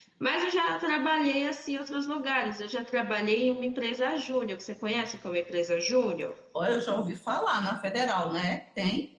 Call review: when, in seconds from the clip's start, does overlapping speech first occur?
none

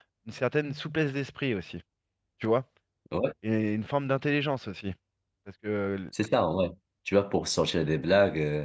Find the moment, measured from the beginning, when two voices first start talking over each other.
none

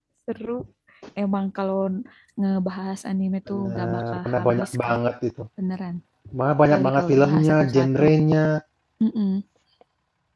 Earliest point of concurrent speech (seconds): 3.5 s

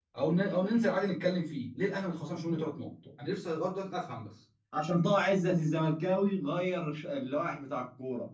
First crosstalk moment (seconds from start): none

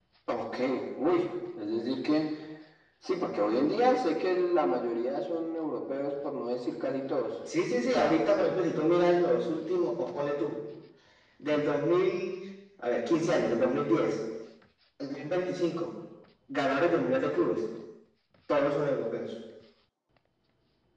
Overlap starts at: none

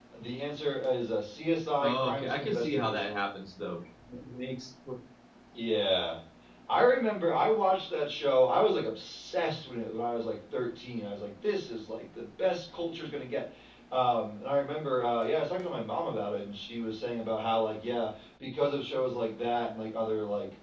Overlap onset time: 1.8 s

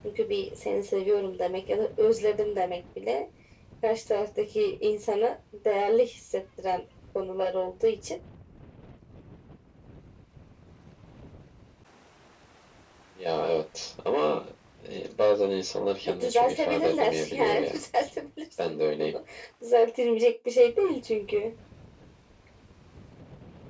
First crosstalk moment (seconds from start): 16.0 s

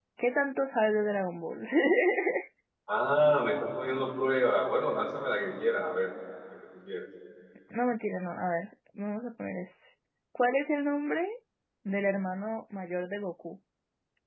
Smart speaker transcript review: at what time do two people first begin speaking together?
none

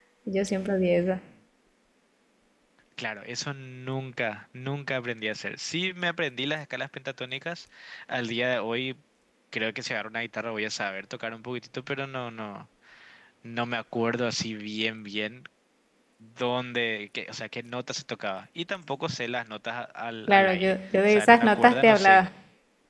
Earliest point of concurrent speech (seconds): 20.3 s

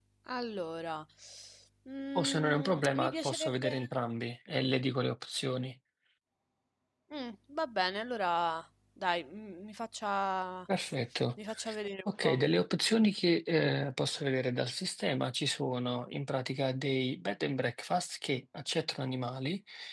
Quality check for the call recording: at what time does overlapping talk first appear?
2.2 s

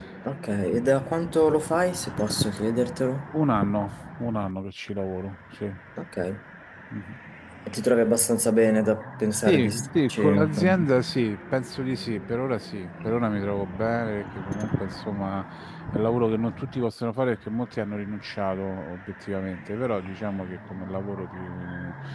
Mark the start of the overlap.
9.4 s

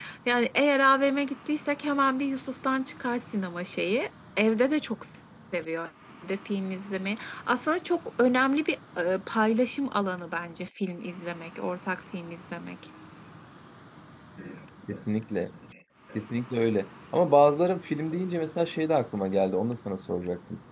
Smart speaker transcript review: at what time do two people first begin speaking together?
none

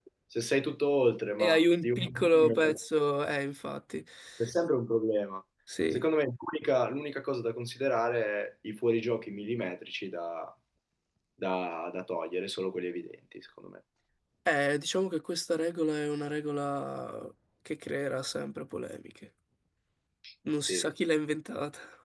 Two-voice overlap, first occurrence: 1.4 s

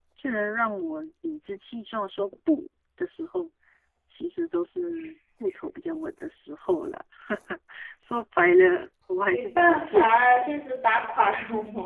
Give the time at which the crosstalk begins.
9.3 s

